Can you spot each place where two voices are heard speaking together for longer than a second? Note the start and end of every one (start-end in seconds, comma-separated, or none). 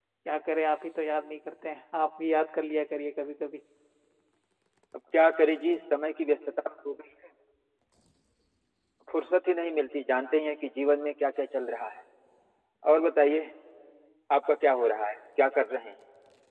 none